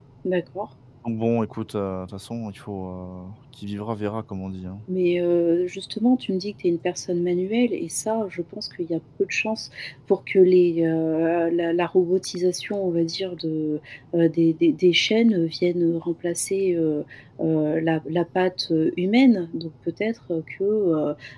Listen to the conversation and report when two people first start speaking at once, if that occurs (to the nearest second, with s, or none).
none